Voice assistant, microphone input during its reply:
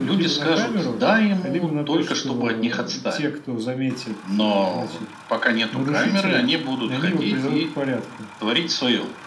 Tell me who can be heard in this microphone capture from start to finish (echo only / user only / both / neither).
echo only